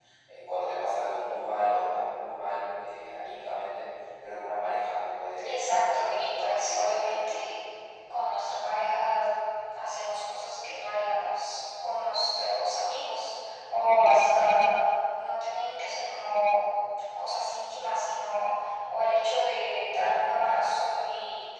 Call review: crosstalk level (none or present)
present